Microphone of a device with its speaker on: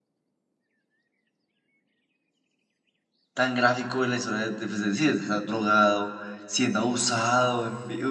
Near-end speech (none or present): present